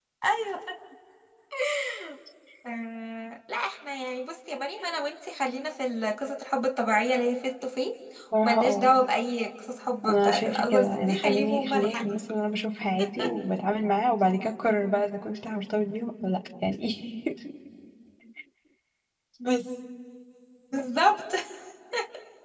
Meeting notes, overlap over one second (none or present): present